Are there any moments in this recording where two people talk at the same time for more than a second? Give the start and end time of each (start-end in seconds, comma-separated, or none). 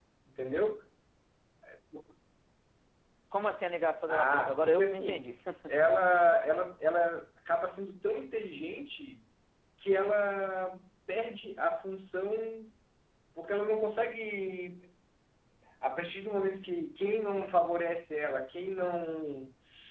4.1-5.4